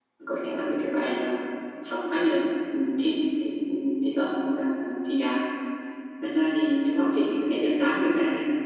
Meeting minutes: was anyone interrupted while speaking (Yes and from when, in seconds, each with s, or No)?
No